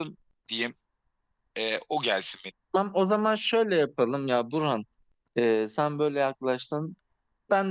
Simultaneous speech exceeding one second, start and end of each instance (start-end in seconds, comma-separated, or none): none